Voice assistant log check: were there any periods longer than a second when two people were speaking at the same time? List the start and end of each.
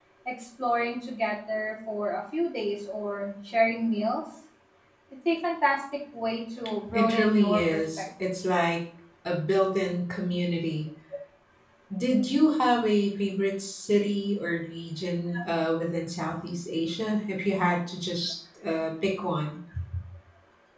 6.9-8.3

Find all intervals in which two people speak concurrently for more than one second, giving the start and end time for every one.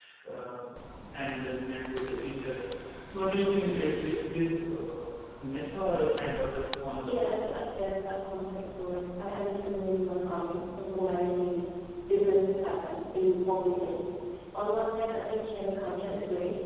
none

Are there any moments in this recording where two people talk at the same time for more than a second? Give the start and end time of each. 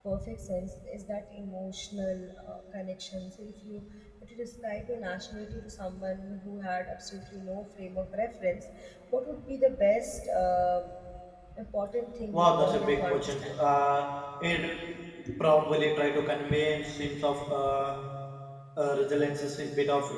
12.3-13.6

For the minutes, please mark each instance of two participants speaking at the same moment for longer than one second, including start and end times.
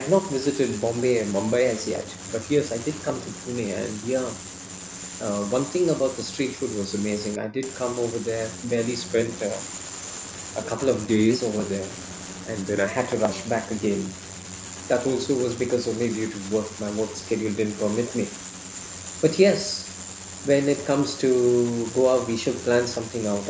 none

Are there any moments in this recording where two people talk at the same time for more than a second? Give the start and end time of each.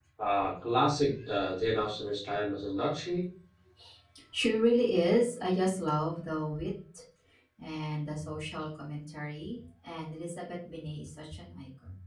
none

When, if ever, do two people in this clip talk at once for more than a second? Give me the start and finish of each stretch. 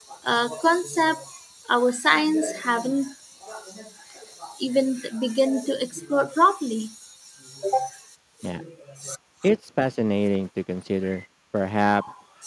none

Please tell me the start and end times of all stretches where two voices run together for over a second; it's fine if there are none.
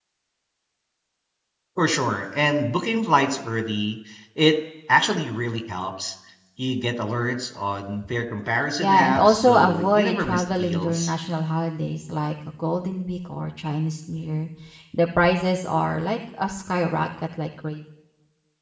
8.8-11.1

